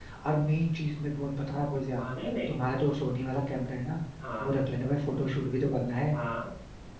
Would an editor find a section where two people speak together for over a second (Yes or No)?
No